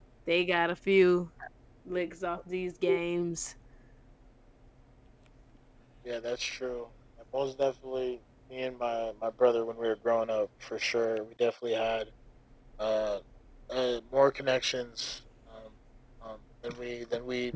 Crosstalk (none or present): none